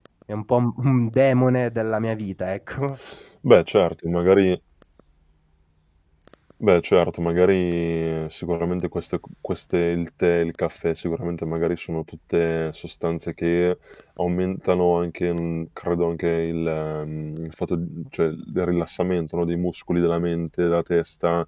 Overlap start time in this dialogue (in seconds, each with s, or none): none